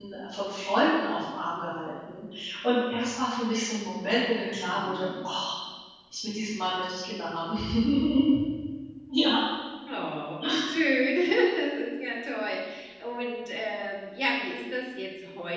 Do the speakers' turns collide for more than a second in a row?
No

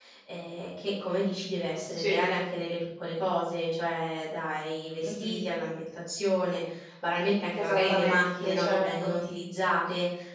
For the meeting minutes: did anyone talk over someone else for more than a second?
Yes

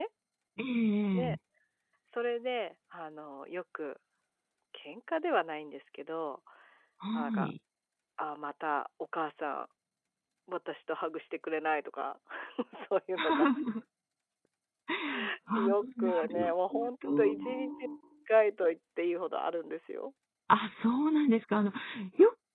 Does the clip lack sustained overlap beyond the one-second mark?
No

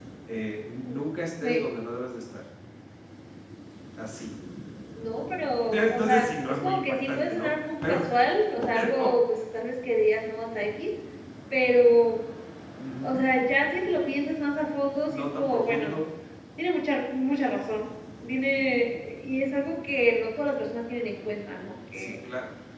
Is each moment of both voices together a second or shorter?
No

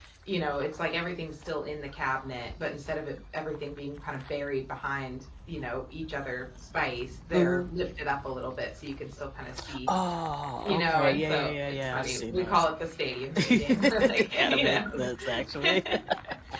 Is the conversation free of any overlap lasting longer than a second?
No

